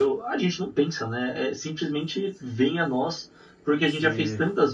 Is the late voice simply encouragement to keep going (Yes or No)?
Yes